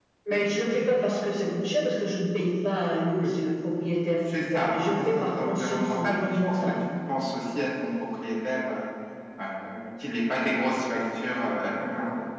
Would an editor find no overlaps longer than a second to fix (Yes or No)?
No